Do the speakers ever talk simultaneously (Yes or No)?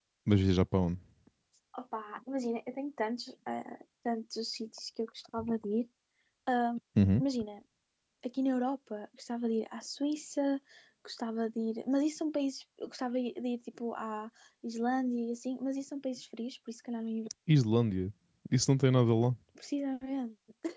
No